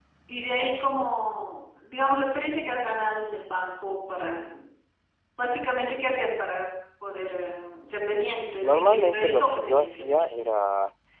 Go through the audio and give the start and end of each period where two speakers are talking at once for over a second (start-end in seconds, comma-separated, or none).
8.6-10.2